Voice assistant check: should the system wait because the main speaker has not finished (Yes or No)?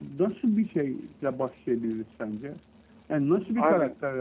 Yes